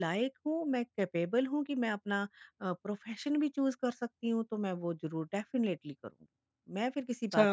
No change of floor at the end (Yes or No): No